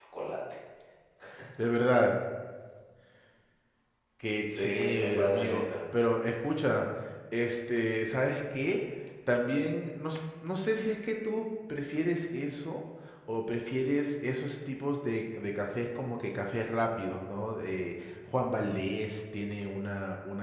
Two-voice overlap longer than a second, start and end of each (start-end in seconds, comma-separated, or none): 4.5-5.8